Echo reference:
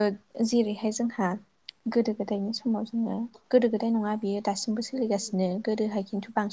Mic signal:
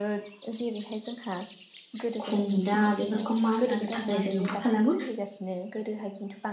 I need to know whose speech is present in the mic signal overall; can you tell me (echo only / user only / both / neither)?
both